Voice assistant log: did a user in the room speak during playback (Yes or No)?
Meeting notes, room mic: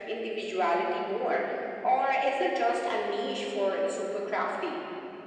No